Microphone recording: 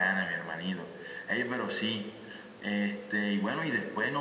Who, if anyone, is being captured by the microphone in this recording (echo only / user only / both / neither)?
echo only